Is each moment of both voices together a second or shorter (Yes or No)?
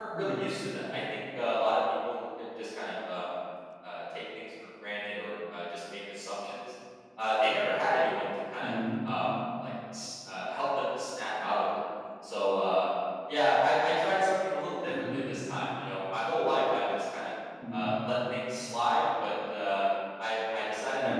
Yes